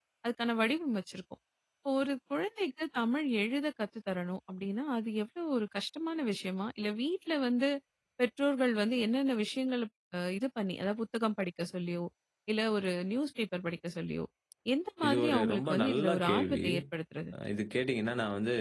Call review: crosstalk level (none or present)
present